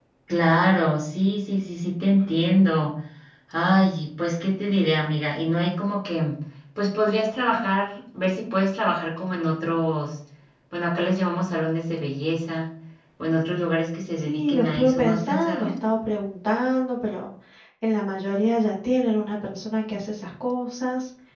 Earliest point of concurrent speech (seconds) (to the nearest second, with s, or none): 14 s